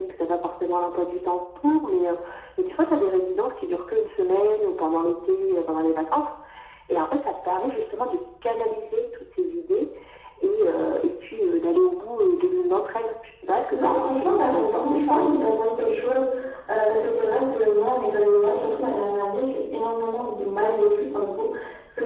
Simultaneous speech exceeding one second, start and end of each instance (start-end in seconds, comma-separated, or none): 13.7-15.4